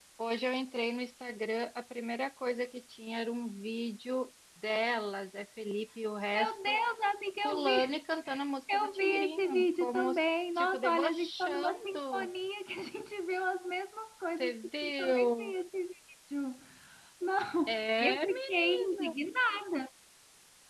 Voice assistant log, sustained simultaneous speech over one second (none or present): present